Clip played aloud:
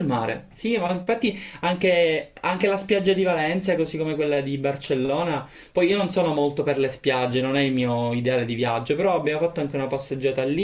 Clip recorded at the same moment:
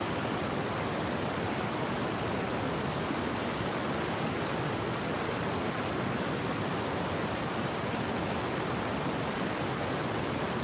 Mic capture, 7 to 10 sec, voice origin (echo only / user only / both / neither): neither